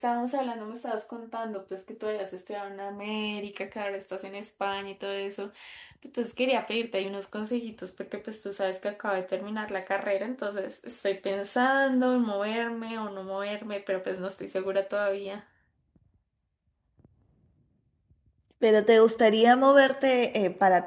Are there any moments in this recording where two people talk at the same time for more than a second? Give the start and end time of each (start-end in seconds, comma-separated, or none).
none